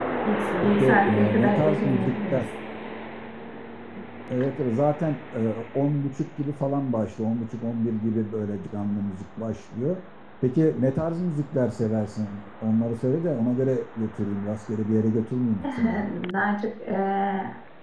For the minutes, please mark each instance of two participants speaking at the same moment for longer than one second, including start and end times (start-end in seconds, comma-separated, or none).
0.6-2.5